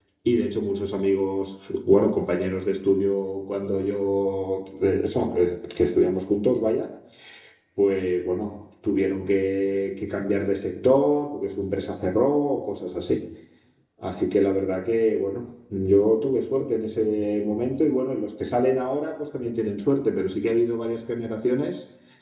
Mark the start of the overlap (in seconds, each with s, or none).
none